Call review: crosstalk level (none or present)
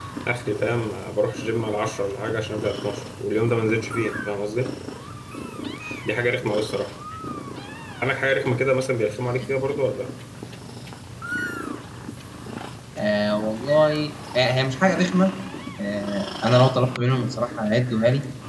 none